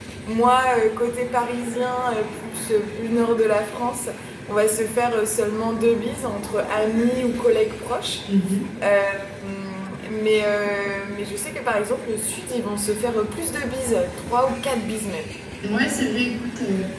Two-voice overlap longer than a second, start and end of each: none

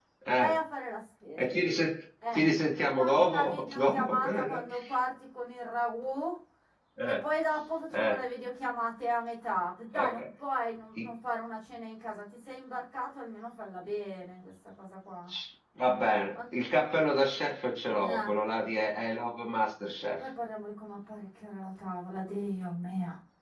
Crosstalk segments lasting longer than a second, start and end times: 3.0-4.6

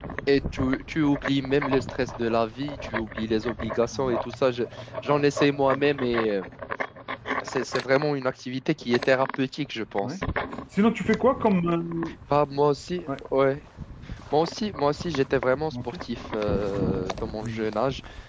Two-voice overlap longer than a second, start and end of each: none

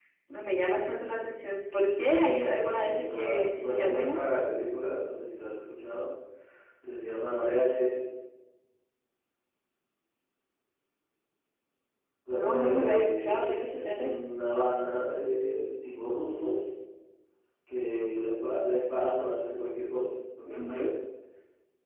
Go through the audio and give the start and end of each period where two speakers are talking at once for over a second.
2.5-4.1, 12.3-14.1

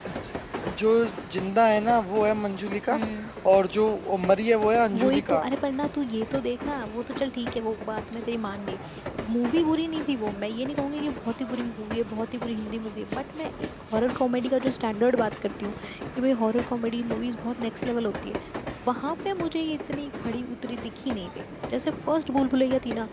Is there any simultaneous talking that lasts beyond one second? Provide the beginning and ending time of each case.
none

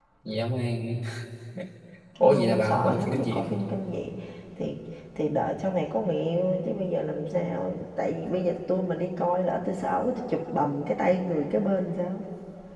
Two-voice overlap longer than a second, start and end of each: 2.2-3.5

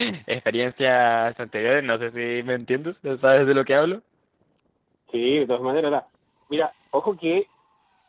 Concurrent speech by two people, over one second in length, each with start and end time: none

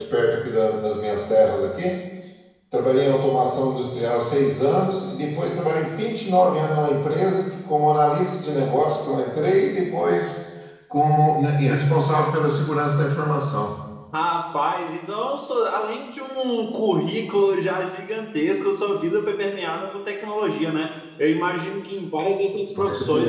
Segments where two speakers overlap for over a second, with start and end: none

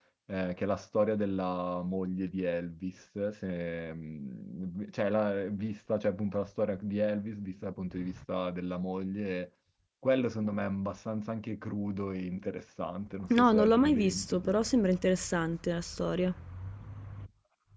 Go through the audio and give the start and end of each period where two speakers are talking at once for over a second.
13.3-14.5

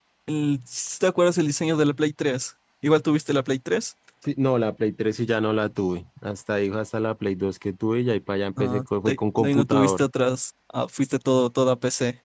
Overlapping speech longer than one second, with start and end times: 8.6-10.0

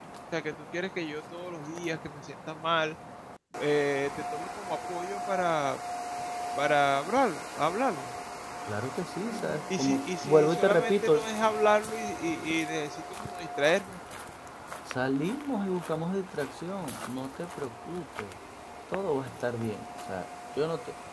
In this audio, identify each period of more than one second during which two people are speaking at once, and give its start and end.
9.8-11.2

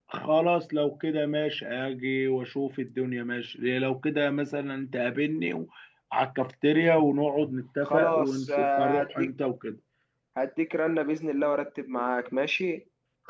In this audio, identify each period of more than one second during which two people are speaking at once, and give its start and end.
7.8-9.3

